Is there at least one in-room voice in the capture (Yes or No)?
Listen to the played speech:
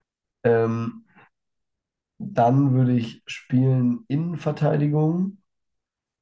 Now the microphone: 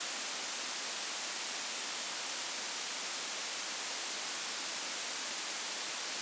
No